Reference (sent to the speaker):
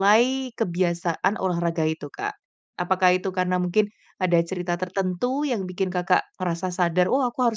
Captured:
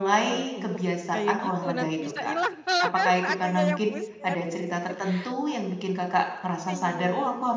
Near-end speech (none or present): present